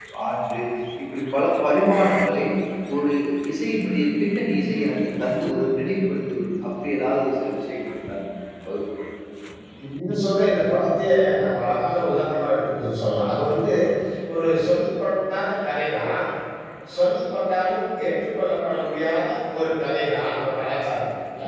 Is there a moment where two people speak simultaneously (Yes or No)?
No